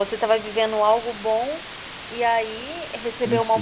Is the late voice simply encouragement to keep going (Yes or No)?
Yes